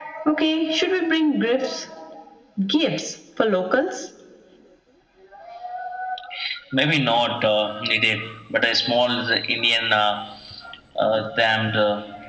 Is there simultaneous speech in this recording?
No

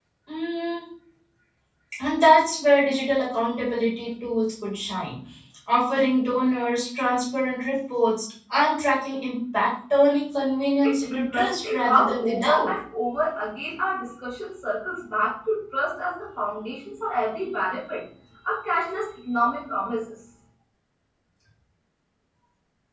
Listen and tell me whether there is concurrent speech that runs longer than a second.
Yes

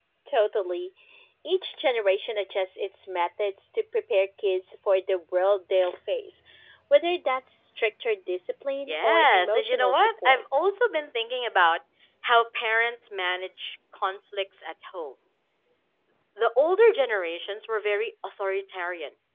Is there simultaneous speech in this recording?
Yes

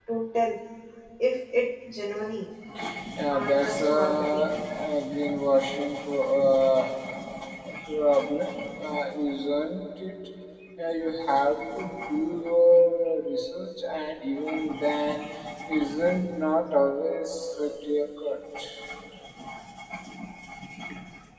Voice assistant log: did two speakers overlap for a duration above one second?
Yes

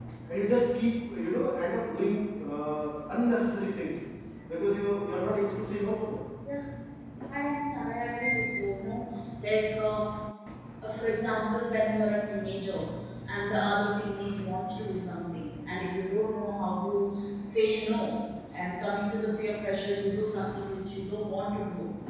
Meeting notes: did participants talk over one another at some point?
No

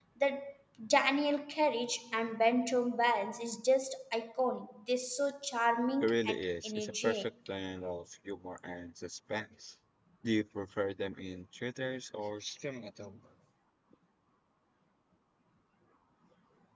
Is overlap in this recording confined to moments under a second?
No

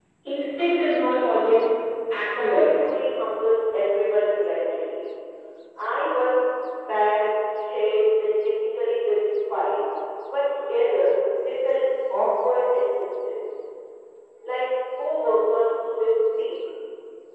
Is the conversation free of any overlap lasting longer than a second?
Yes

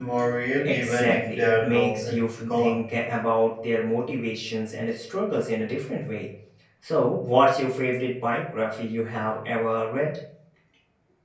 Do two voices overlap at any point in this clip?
Yes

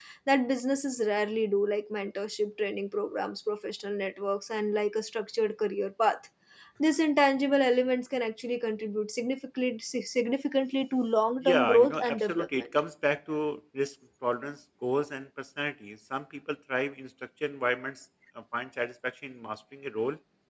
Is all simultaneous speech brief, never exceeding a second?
No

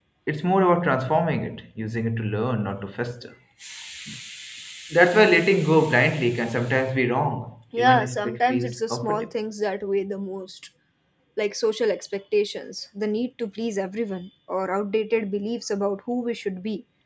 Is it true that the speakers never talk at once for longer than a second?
No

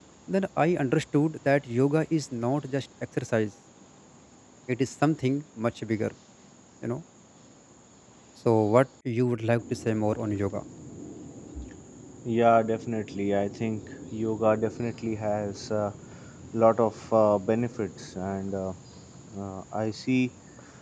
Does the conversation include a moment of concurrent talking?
No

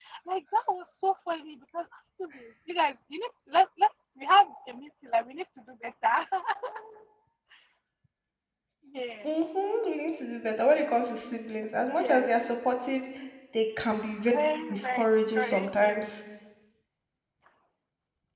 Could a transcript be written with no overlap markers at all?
No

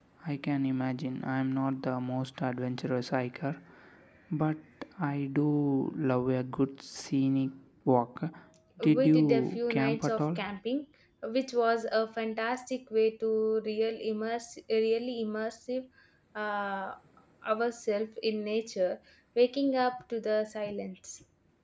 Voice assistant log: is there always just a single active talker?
No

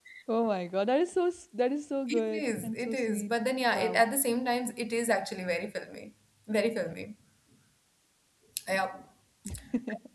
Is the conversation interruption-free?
No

